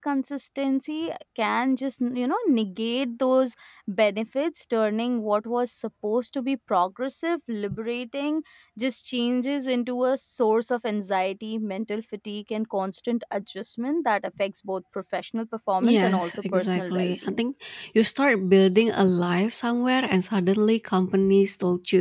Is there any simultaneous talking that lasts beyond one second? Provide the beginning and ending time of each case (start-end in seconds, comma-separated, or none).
15.8-17.4